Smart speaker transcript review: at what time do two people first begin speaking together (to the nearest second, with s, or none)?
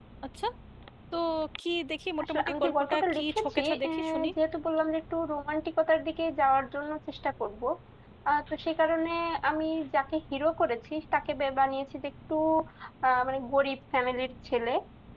2 s